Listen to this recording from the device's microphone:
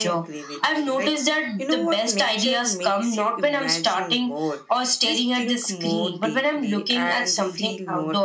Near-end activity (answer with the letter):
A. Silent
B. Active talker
A